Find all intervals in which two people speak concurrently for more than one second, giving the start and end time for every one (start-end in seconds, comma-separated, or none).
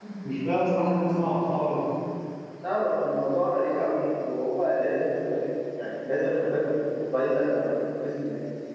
none